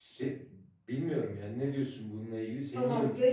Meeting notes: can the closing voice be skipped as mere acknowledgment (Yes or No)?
No